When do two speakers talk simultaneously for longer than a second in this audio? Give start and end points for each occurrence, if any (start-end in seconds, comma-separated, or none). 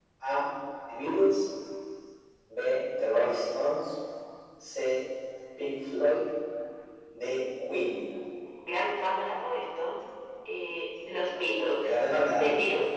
none